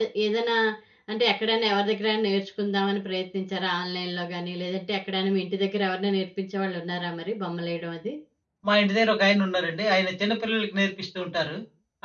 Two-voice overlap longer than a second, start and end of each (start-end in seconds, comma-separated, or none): none